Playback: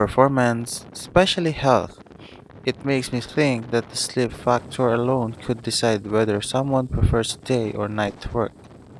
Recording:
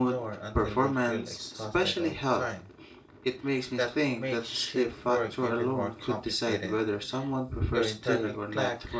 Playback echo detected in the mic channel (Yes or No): Yes